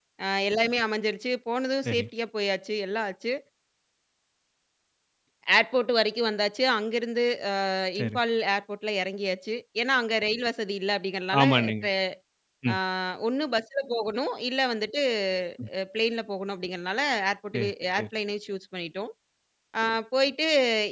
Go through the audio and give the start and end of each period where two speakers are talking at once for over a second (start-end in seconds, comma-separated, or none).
none